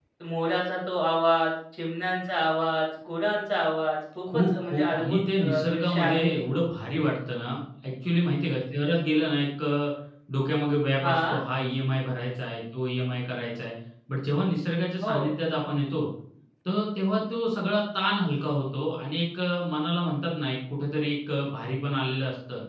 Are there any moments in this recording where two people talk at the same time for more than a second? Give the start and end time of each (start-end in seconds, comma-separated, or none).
4.3-6.5